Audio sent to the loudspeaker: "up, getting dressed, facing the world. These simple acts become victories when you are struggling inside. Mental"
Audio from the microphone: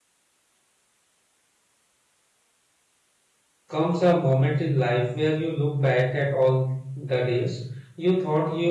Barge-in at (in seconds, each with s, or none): 3.7 s